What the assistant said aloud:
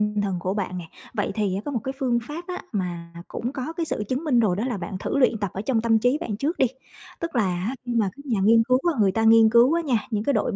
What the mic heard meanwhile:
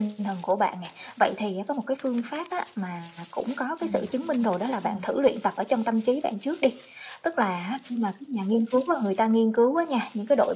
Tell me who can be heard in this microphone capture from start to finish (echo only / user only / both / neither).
both